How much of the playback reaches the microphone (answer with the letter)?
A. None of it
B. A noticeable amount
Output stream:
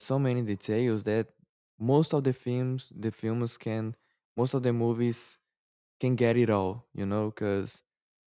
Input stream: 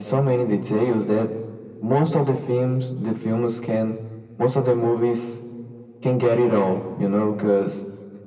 B